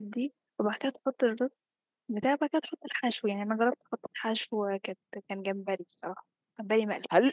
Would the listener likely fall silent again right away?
No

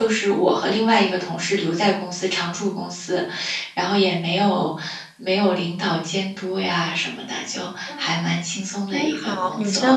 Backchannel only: No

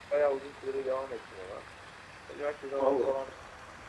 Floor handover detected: No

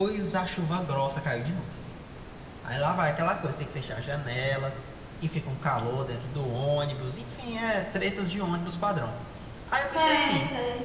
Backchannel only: No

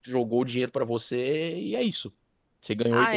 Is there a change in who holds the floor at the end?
Yes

